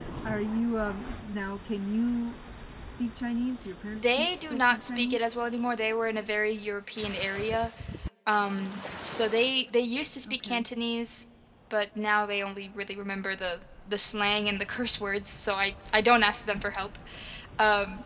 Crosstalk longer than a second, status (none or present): present